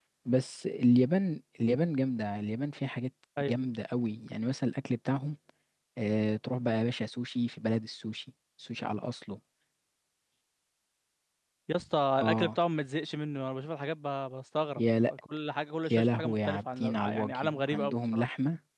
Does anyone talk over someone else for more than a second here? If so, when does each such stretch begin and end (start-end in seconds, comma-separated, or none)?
15.9-18.2